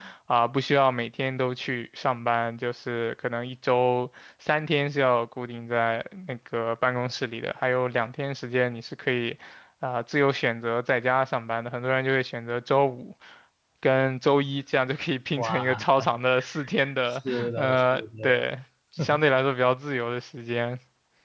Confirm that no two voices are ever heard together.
No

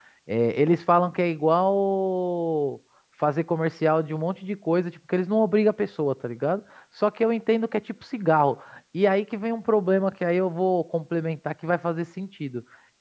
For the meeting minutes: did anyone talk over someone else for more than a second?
No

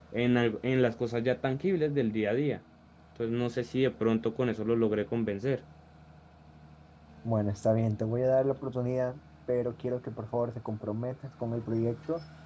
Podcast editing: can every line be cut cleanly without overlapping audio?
Yes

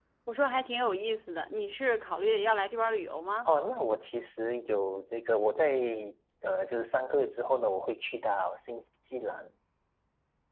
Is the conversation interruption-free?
Yes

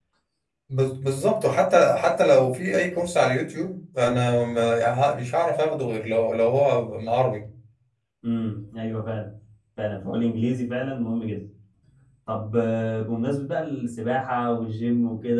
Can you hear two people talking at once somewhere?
No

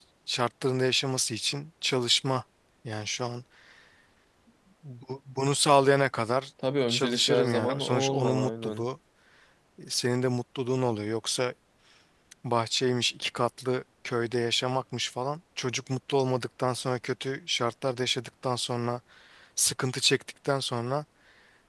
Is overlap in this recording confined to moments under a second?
No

